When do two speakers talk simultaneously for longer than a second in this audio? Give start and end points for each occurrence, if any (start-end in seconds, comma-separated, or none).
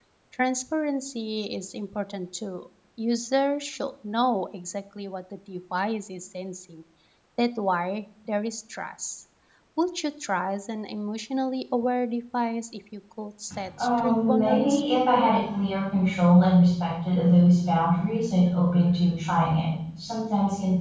13.8-15.4